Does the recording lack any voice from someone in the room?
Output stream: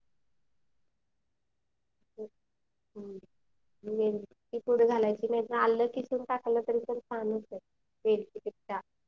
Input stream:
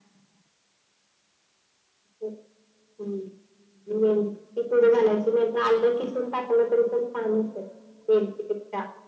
Yes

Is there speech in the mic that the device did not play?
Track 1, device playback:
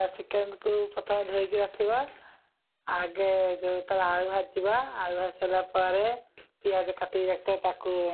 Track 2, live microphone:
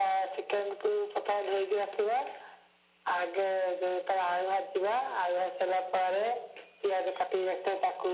No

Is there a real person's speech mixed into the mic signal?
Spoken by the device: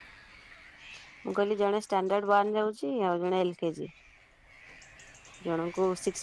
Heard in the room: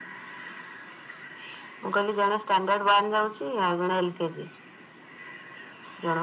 No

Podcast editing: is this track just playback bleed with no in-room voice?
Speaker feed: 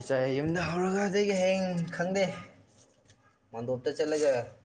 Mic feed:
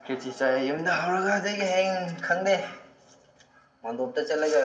Yes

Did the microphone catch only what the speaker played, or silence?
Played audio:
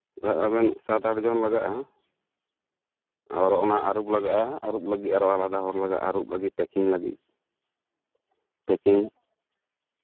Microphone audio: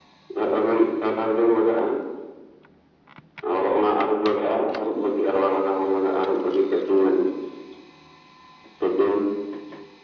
Yes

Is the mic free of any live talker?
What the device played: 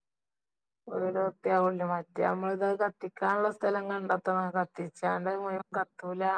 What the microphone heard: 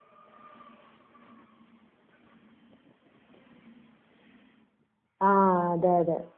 No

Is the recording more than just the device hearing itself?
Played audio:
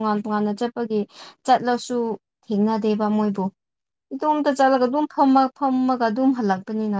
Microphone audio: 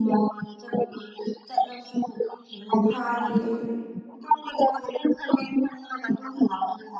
Yes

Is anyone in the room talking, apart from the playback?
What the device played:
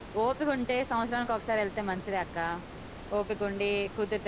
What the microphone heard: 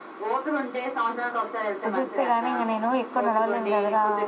Yes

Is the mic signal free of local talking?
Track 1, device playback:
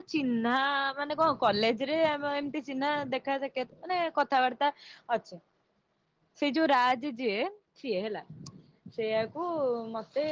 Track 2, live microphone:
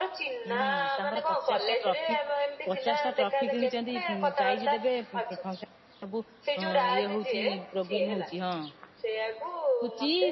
No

